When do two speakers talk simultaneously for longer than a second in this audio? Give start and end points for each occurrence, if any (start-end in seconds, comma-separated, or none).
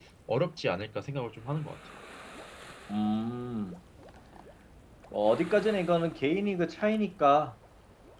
none